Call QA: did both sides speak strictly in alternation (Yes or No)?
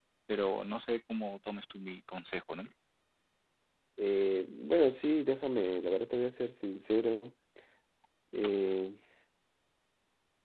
Yes